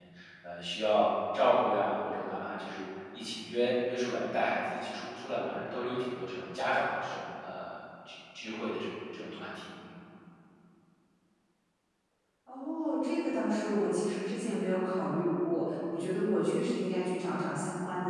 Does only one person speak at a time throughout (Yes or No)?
Yes